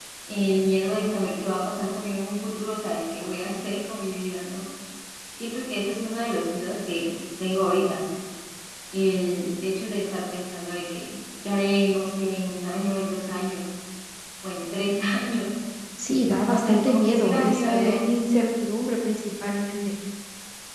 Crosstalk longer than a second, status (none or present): present